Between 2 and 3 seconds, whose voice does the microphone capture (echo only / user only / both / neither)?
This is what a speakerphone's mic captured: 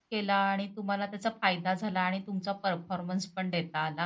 user only